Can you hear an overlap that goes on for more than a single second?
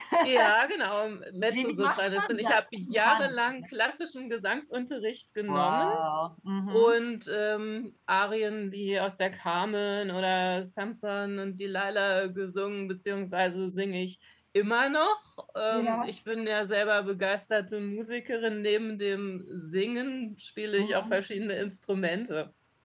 Yes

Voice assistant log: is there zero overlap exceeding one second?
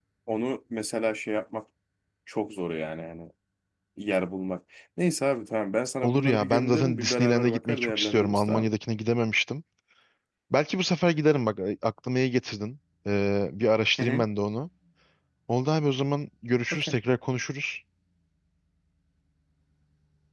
No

